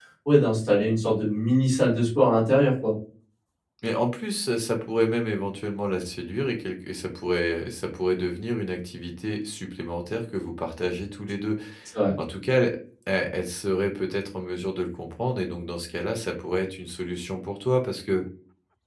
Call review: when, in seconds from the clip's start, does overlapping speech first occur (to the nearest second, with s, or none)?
none